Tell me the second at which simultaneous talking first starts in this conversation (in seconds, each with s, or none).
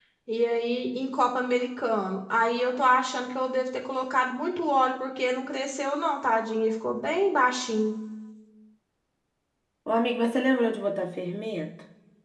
none